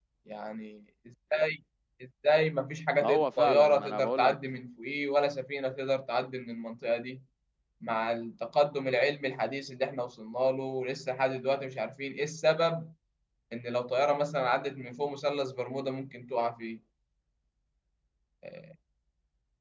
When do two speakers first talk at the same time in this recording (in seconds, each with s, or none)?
3.0 s